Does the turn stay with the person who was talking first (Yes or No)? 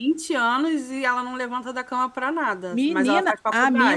No